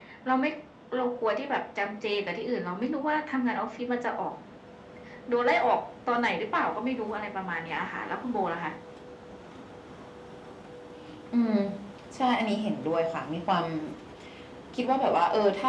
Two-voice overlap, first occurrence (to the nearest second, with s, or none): none